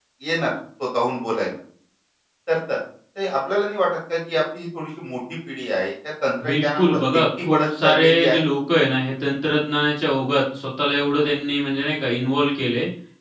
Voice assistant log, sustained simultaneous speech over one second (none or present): present